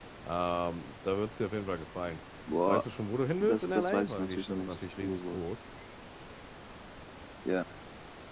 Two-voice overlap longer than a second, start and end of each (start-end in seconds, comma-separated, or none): 3.4-5.4